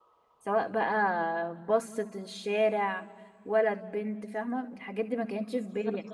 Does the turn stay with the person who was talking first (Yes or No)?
Yes